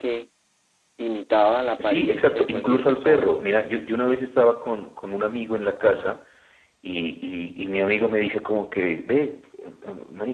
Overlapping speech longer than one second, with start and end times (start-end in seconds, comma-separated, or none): 1.8-3.3